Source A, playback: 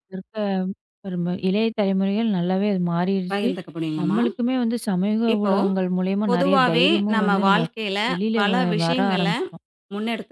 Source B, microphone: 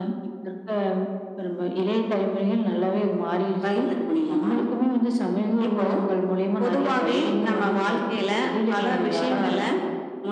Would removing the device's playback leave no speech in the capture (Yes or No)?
Yes